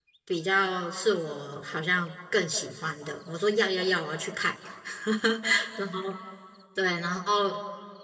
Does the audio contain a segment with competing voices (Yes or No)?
No